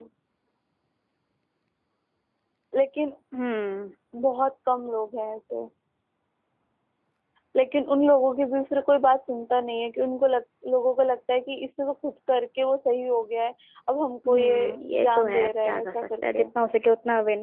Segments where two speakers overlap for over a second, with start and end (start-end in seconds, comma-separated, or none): 14.3-16.4